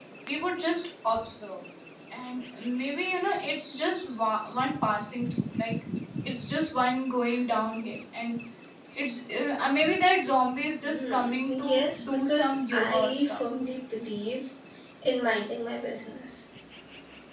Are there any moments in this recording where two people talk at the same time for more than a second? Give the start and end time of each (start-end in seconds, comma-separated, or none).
10.8-13.4